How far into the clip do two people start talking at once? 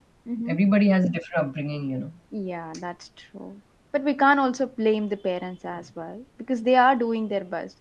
none

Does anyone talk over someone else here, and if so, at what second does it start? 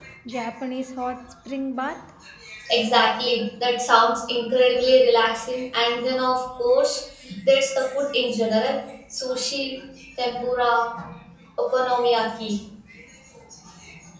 none

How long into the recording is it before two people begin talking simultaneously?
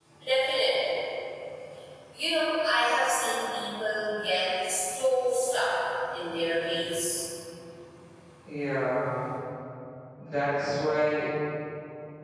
none

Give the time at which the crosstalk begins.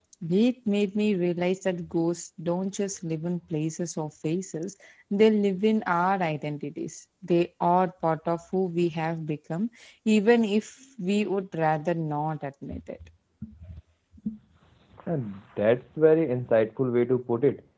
none

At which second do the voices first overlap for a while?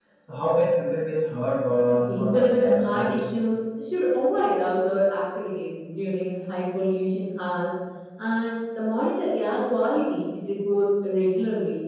2 s

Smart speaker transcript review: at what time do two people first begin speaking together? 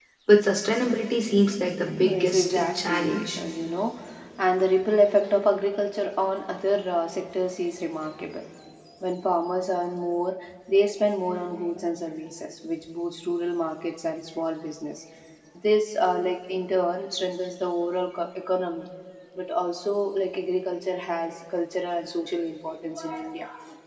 2 s

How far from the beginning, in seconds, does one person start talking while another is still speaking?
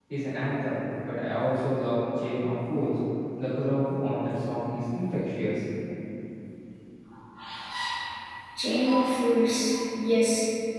none

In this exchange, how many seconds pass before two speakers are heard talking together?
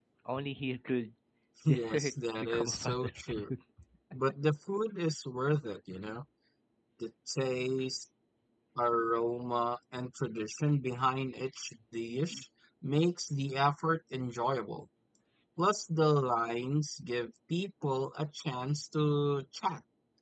2 s

